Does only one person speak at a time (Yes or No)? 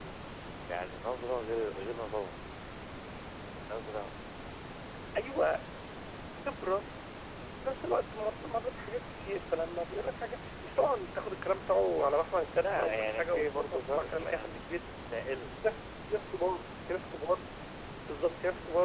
No